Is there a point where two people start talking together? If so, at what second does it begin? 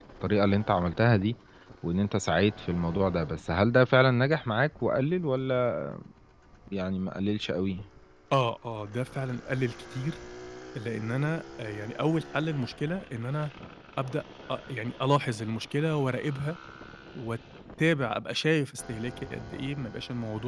none

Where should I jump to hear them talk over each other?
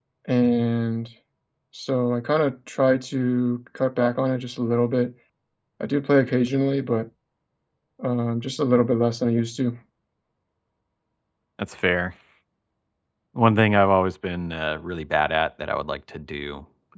none

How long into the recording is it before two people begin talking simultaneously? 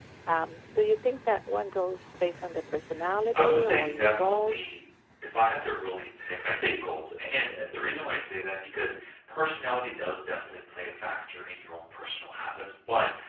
3.3 s

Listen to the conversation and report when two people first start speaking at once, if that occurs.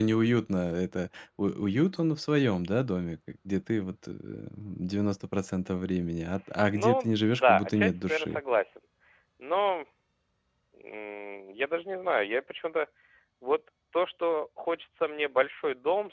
6.7 s

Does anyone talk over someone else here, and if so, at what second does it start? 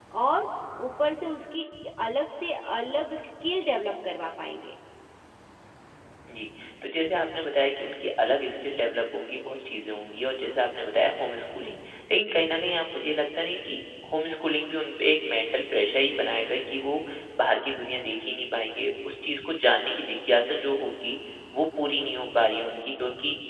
none

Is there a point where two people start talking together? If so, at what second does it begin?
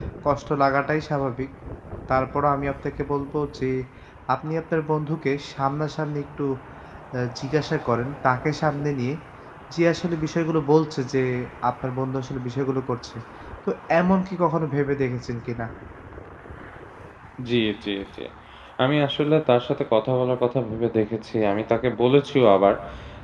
none

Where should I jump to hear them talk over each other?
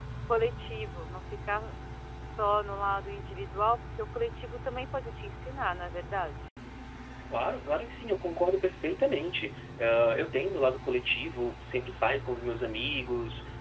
none

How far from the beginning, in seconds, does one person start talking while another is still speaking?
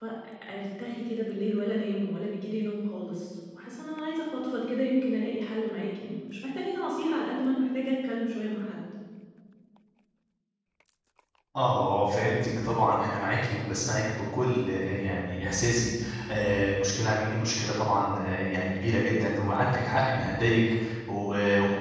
none

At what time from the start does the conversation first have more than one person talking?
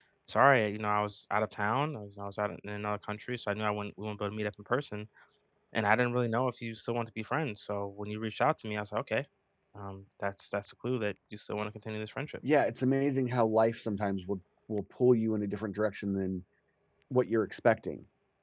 none

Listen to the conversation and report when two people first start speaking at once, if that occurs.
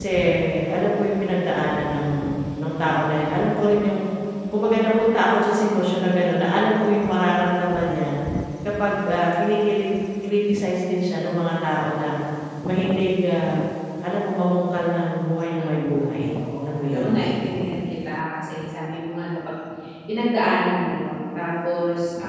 15.6 s

